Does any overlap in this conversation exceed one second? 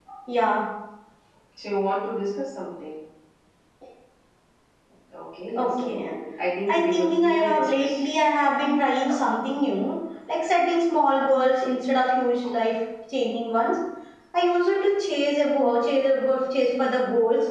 Yes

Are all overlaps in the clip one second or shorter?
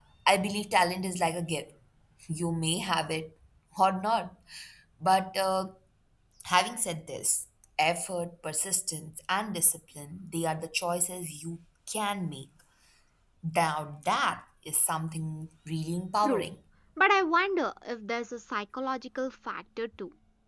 Yes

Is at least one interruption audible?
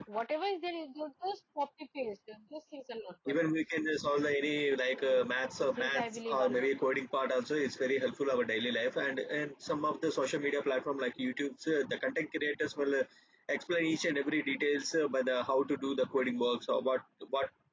Yes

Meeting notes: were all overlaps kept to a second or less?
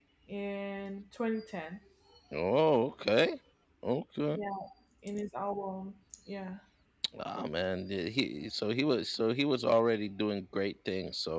Yes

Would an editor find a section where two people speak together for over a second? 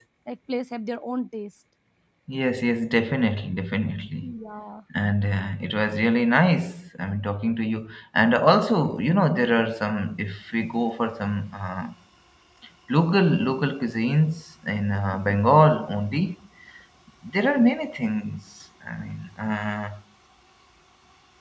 No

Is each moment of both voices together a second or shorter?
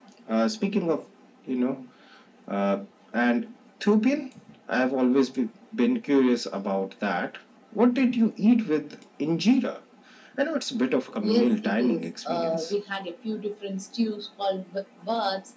No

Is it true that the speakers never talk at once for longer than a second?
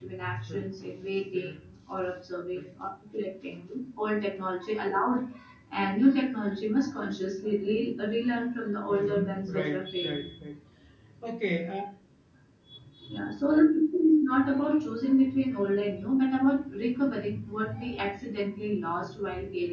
No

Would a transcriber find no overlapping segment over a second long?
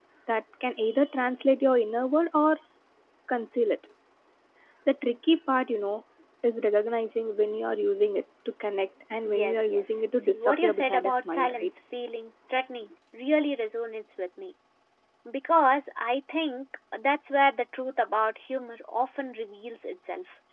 No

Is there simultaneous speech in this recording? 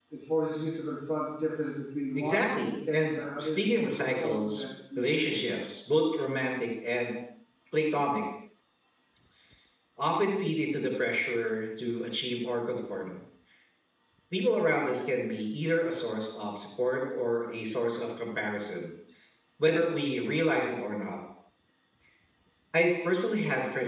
Yes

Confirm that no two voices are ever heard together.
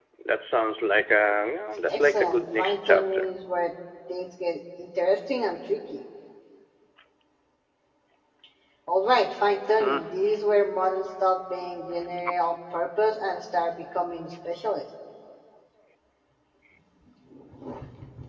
No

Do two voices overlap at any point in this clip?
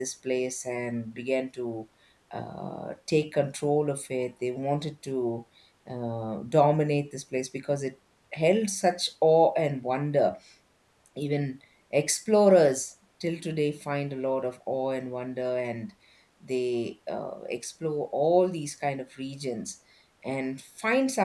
No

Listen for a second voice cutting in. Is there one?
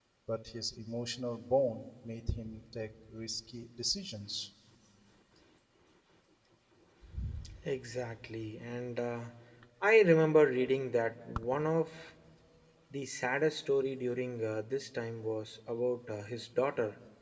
No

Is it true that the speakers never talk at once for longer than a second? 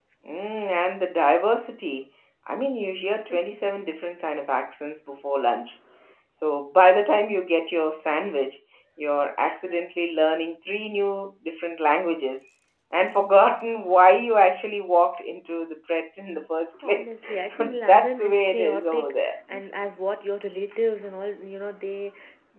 No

